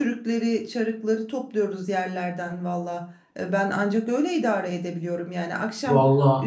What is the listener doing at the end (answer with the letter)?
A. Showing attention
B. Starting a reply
A